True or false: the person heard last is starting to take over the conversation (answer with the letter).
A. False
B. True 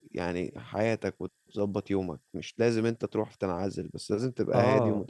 B